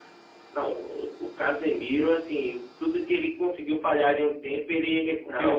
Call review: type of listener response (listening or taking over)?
taking over